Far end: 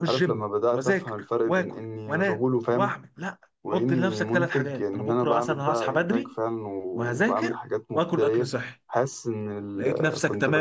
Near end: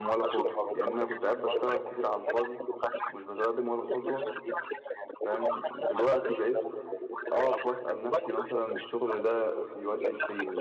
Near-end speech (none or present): present